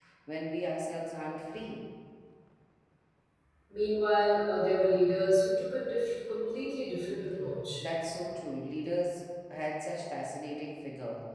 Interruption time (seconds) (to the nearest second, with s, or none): none